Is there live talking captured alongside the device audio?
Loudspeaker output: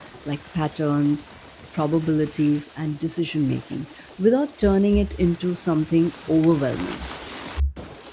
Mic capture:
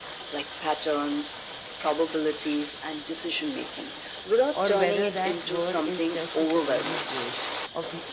Yes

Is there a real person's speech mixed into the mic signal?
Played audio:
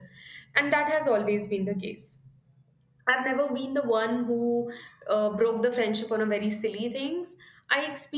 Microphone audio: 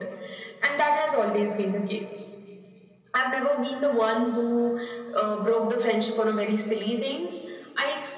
No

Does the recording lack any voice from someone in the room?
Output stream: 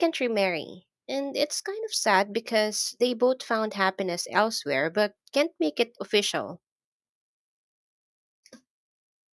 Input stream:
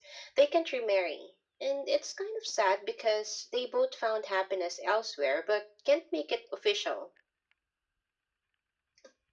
Yes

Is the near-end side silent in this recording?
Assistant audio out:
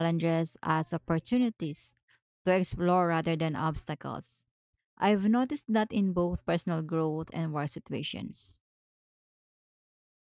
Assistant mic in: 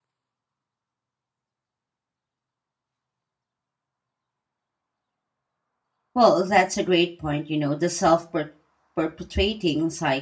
No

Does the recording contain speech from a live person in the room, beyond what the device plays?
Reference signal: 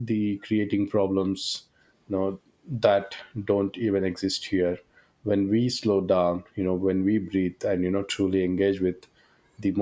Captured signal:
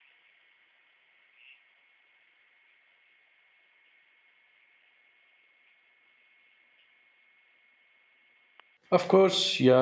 Yes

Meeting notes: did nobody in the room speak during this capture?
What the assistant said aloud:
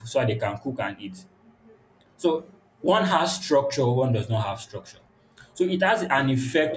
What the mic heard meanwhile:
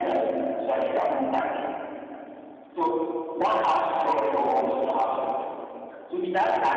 Yes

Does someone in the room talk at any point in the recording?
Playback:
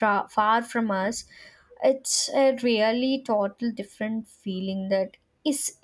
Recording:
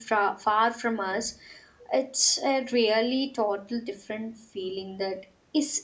No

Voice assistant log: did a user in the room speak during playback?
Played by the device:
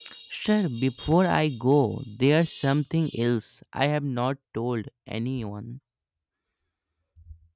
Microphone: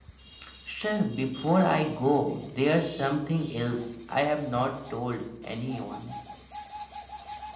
No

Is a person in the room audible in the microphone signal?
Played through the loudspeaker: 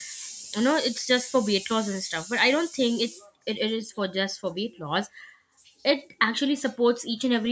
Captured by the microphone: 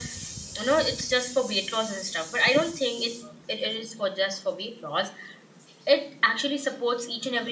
No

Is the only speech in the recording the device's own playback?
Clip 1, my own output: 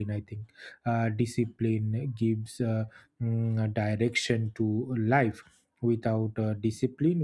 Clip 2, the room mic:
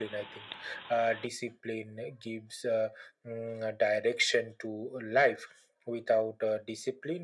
Yes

